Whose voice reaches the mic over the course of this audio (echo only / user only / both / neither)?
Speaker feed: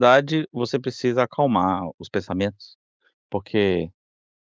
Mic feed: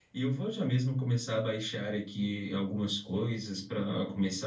user only